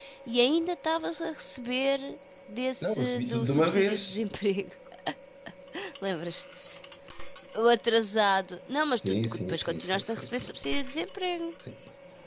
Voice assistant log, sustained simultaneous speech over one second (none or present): present